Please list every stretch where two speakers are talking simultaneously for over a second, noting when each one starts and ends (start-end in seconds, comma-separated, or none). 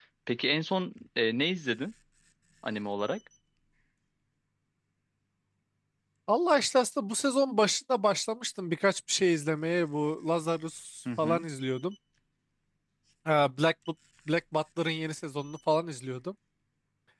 none